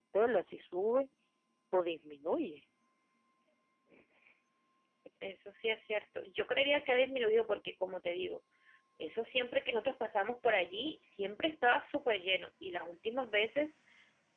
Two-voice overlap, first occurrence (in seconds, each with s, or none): none